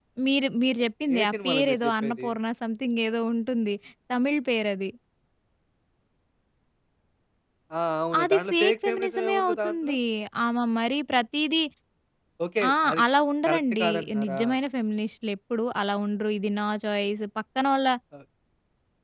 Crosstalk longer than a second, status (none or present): present